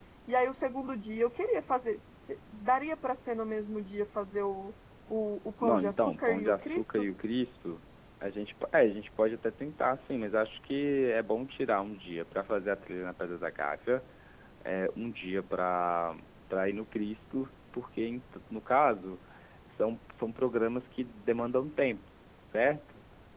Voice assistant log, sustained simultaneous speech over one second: present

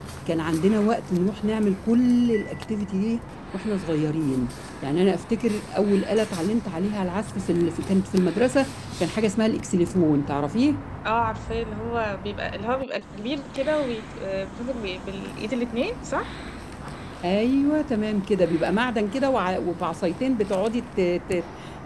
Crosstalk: none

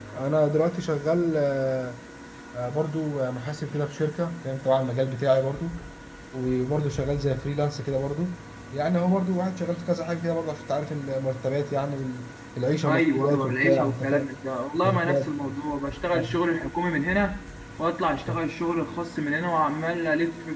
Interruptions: present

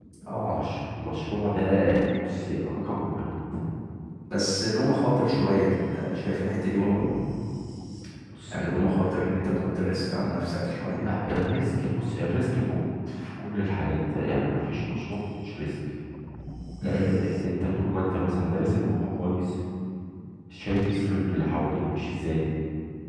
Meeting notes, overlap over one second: none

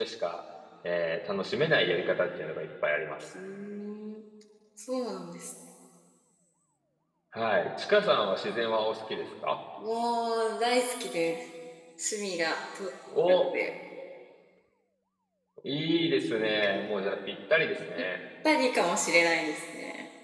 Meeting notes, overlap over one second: none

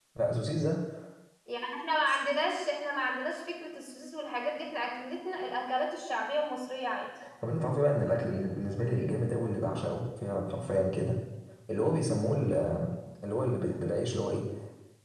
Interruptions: none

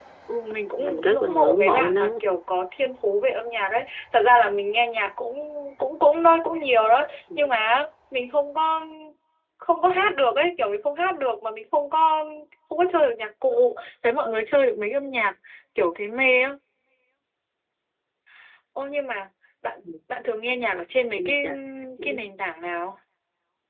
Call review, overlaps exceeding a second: present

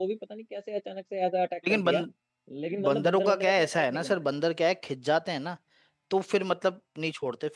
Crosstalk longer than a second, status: present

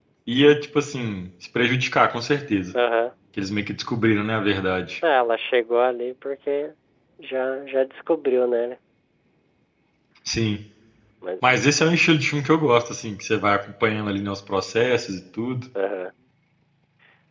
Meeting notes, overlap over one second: none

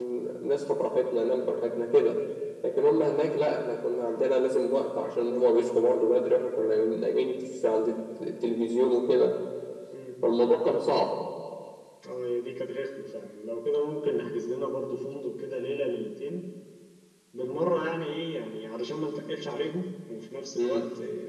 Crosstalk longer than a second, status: none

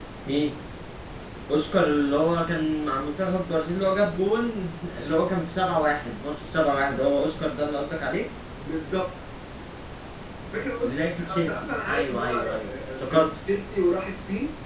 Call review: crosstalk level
present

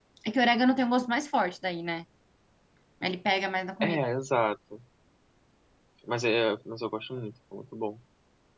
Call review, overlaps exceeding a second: none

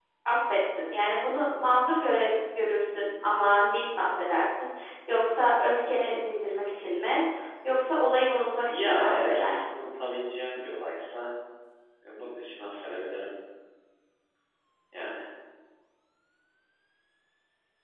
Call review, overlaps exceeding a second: present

